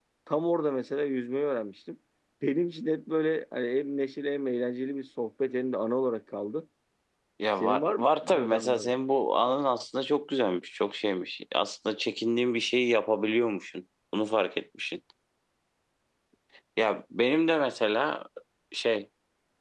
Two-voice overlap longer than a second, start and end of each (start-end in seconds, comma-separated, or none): 7.6-8.9